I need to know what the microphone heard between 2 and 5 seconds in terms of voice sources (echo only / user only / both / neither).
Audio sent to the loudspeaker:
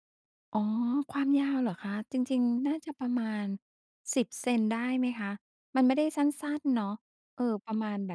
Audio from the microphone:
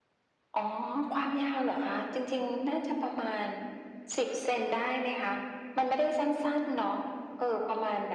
echo only